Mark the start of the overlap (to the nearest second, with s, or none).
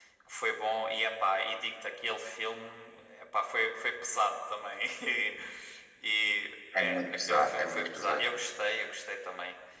7 s